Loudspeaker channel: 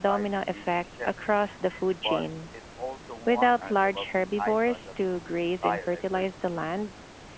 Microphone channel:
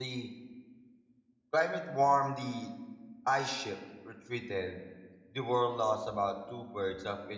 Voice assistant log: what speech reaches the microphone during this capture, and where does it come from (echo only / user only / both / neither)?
user only